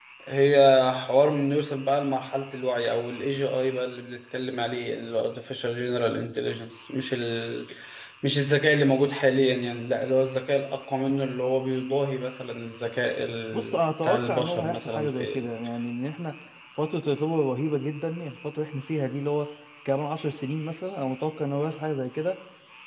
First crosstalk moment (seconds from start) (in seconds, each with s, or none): 13.5 s